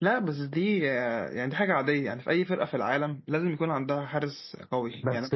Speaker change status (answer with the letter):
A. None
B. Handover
B